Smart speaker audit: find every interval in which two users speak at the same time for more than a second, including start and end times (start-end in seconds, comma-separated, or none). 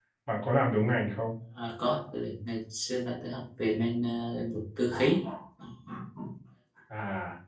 none